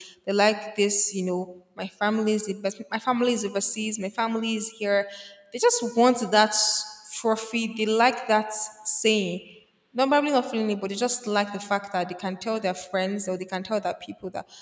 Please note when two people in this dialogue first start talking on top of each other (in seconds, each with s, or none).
none